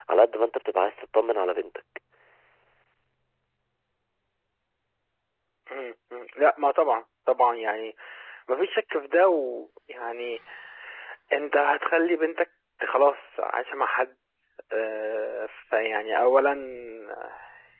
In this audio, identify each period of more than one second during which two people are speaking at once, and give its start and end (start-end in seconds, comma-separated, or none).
none